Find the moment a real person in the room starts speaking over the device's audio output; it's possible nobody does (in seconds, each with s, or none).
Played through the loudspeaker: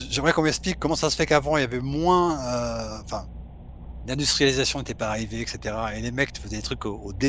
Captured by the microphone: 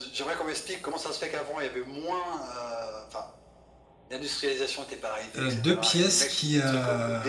5.4 s